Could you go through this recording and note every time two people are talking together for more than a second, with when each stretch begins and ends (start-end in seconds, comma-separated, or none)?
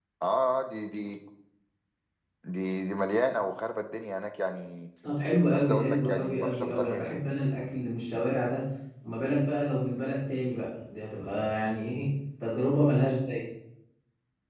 5.5-7.2